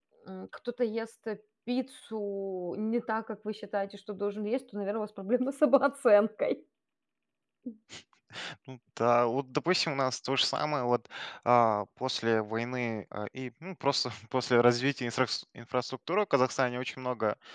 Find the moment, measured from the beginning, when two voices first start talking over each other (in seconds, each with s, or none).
none